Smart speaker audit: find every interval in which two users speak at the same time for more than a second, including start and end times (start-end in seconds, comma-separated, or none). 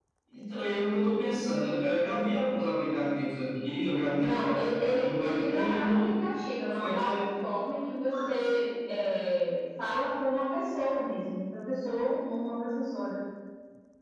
4.1-6.1